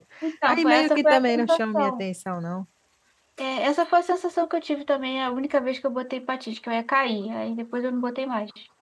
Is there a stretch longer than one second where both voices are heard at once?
Yes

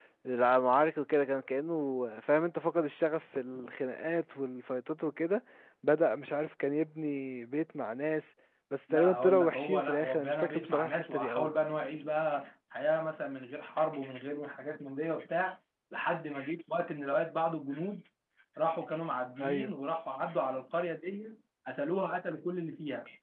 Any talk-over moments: Yes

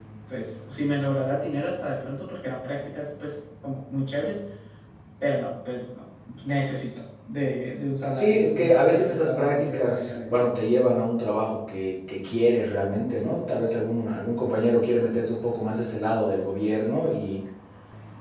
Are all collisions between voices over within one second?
No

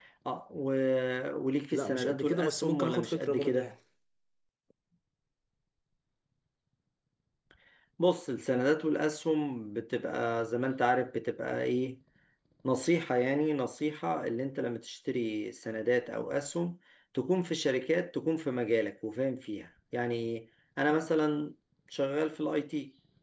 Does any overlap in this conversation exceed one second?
Yes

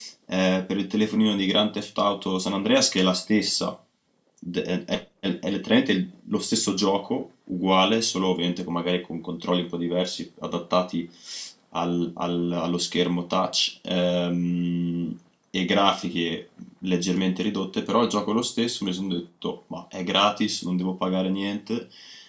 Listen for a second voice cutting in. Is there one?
No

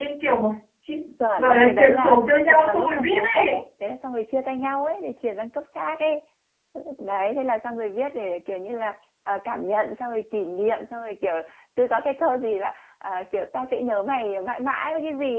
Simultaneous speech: Yes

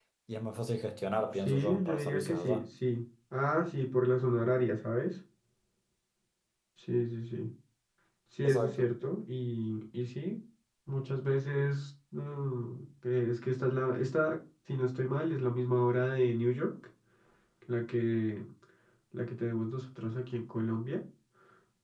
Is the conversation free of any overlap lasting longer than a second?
No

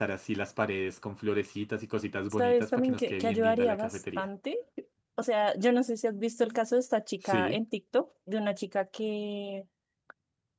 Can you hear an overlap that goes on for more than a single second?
Yes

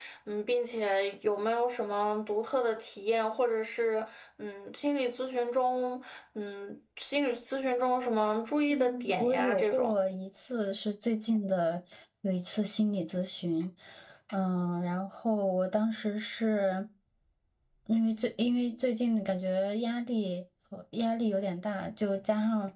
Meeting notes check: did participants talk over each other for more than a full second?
Yes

